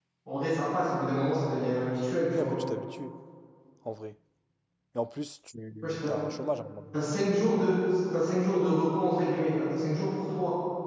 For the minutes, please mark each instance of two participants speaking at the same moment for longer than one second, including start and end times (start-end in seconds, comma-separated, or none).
none